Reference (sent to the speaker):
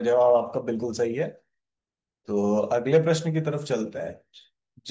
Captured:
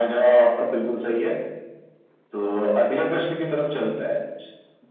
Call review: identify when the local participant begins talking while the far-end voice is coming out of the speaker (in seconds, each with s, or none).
none